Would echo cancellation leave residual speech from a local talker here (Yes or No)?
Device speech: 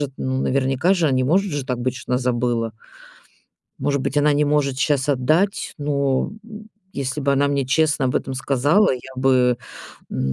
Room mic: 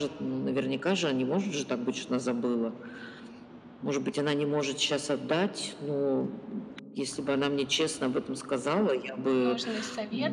Yes